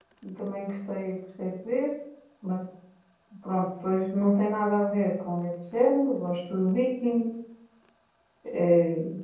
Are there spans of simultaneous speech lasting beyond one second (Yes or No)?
No